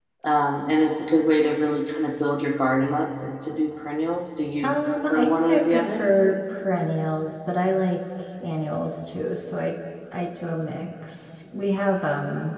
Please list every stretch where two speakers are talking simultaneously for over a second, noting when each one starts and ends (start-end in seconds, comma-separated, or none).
4.6-6.1